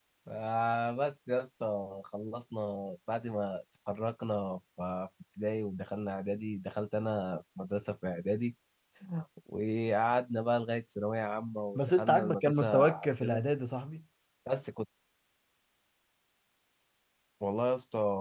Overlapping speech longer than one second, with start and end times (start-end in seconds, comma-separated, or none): 11.8-13.4